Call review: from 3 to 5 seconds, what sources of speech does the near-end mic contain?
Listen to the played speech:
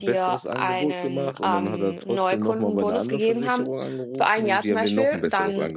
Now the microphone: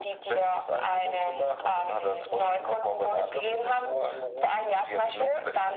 echo only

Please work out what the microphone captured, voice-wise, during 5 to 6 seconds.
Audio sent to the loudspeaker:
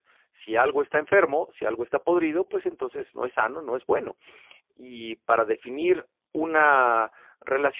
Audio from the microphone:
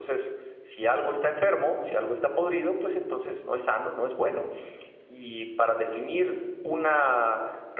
echo only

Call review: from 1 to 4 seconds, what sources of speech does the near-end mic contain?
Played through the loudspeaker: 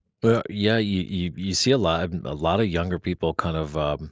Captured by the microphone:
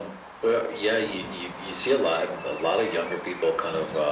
echo only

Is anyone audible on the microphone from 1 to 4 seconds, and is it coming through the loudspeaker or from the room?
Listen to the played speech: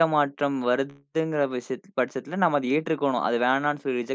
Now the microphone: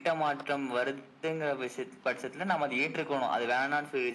echo only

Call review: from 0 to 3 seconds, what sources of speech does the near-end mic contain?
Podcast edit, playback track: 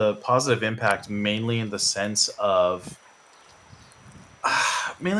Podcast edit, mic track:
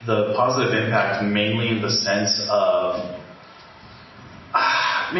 echo only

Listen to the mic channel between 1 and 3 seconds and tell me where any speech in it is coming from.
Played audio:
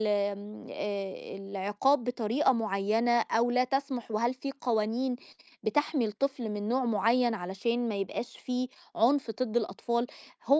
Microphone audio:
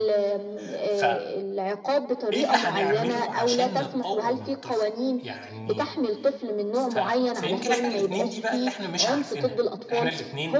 both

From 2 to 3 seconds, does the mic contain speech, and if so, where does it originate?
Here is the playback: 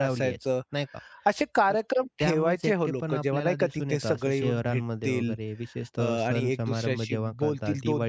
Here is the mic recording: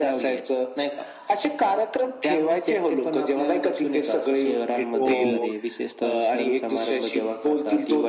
echo only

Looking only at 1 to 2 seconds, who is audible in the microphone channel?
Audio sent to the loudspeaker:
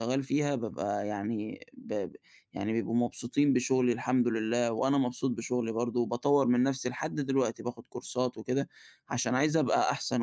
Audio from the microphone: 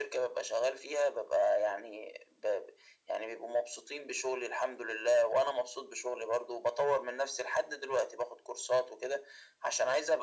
echo only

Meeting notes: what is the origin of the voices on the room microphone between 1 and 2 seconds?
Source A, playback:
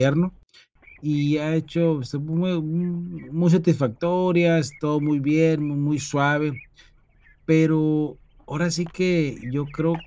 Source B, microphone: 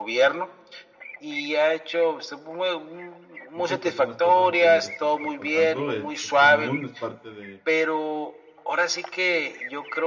echo only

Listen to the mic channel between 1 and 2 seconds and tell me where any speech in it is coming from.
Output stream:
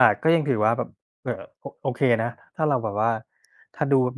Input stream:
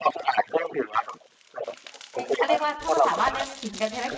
echo only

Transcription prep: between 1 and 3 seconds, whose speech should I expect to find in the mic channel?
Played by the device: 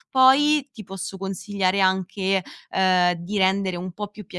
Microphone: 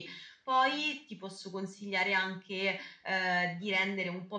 echo only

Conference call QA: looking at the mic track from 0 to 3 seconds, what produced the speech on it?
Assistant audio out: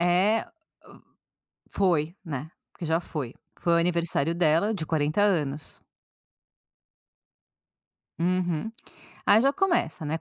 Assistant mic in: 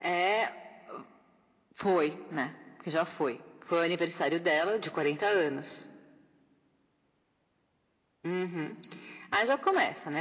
echo only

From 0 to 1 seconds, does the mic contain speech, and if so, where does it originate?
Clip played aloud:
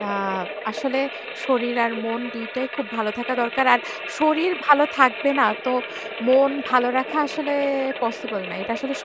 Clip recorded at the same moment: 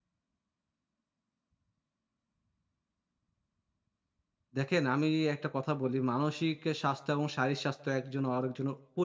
neither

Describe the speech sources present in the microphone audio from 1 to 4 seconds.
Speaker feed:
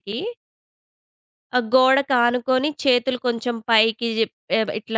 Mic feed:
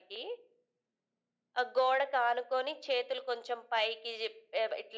echo only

